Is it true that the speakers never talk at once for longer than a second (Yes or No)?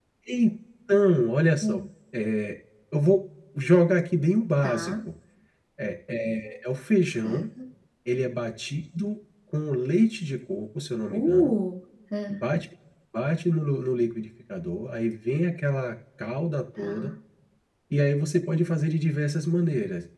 Yes